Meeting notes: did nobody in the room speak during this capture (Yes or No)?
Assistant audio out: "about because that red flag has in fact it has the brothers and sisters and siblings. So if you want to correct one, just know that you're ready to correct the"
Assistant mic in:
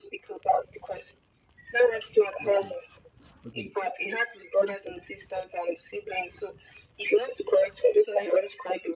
No